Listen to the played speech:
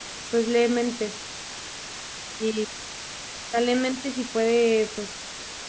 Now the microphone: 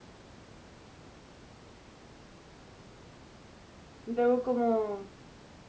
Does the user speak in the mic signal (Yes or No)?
Yes